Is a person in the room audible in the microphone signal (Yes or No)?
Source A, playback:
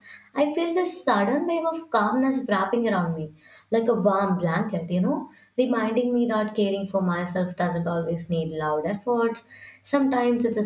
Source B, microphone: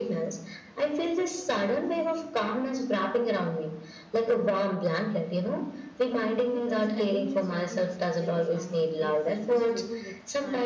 Yes